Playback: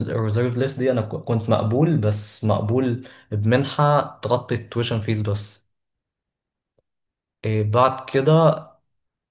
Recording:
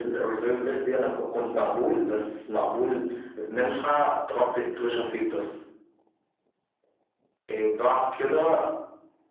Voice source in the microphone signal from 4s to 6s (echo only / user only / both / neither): echo only